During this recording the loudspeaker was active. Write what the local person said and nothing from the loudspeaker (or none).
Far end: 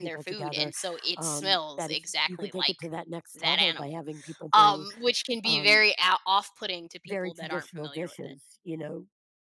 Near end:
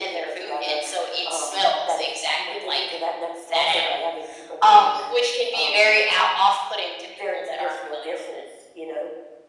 none